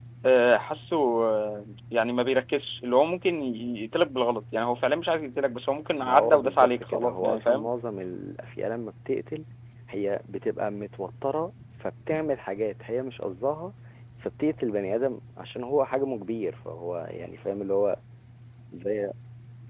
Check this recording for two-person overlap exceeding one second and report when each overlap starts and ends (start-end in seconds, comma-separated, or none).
6.0-7.7